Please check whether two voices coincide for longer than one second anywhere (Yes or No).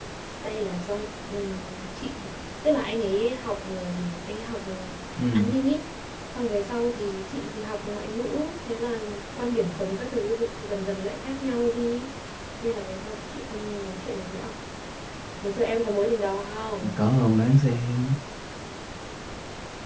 No